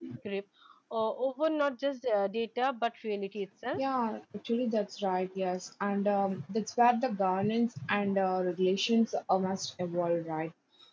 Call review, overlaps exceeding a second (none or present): none